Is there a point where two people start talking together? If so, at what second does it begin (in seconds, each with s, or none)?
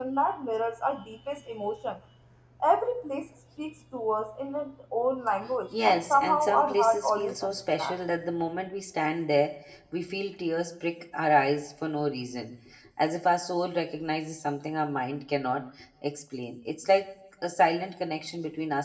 5.7 s